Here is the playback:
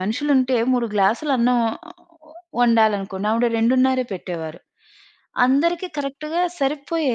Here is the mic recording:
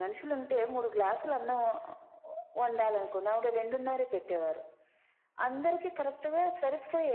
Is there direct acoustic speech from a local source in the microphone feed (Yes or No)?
No